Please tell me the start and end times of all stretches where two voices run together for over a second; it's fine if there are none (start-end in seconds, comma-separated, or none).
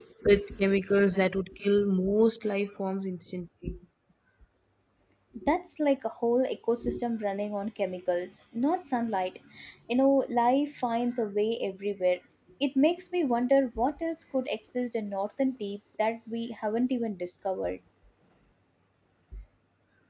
none